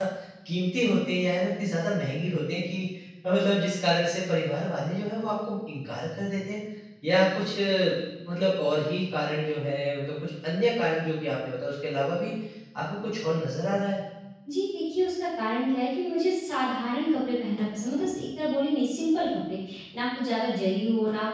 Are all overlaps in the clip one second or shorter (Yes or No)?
Yes